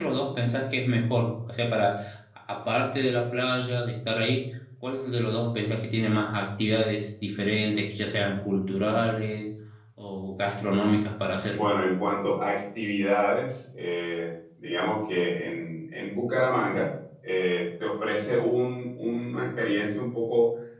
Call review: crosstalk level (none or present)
none